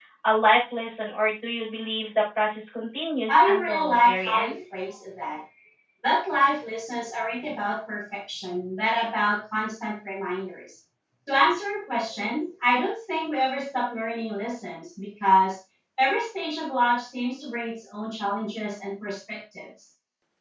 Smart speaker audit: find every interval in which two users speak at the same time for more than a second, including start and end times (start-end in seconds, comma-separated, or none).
3.3-4.6